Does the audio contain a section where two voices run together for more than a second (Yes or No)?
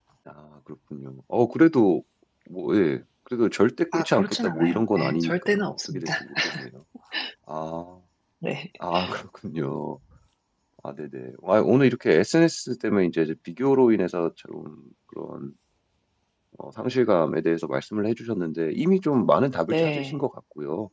Yes